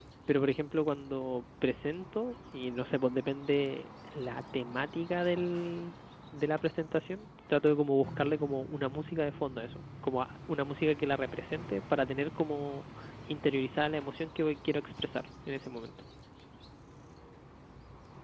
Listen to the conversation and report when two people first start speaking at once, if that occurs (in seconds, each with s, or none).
none